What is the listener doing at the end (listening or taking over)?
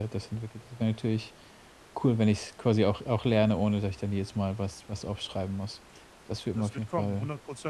taking over